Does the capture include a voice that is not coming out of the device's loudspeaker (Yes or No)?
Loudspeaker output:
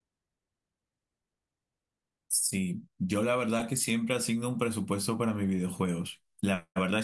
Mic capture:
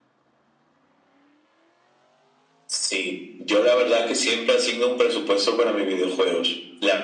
No